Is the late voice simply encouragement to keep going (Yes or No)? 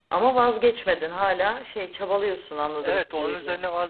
No